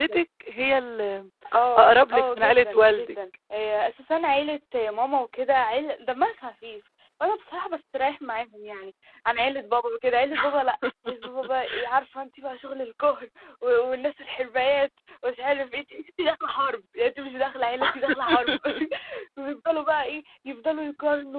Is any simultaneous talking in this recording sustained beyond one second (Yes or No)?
Yes